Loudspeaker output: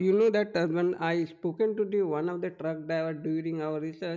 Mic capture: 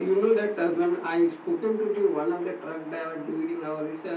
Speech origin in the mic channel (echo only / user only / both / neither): echo only